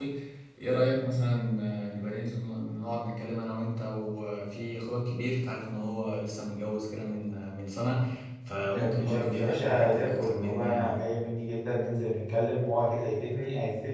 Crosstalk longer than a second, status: present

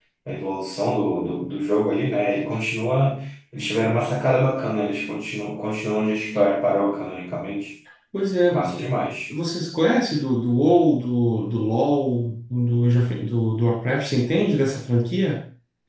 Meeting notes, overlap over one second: none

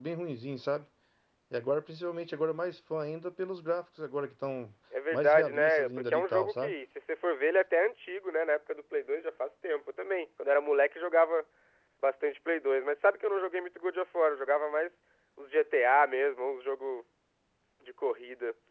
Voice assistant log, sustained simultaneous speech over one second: present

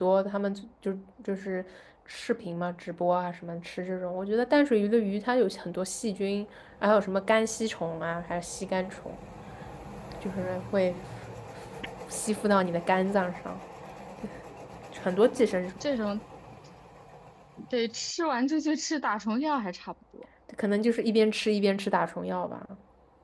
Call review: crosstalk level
none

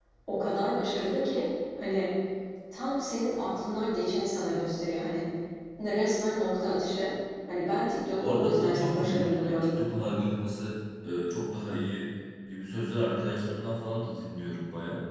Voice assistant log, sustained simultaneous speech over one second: present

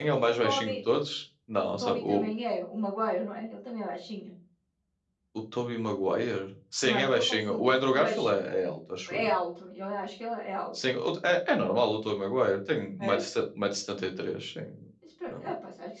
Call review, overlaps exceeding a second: present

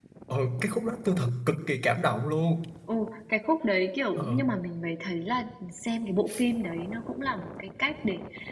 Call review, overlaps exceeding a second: none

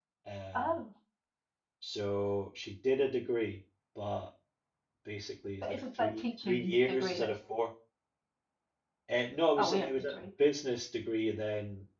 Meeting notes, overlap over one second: present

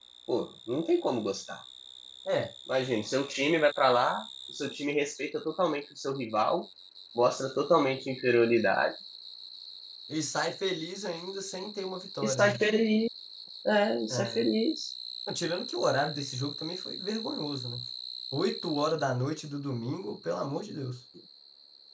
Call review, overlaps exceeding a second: none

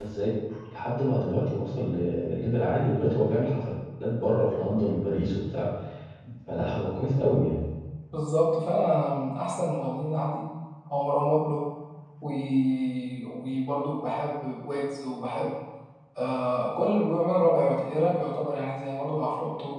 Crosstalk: none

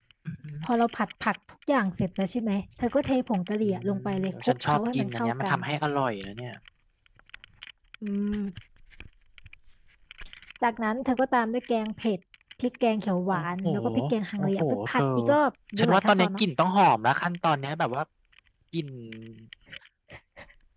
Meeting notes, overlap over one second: present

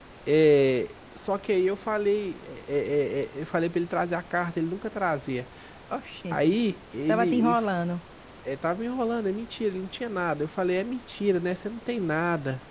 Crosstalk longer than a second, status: none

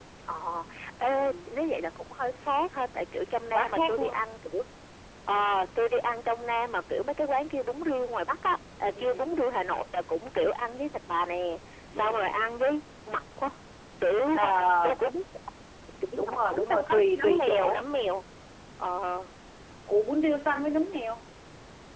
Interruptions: present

